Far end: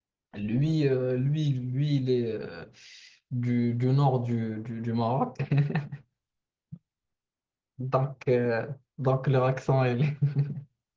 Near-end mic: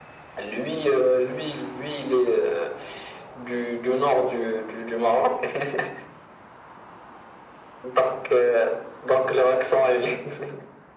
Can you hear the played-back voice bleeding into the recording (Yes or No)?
Yes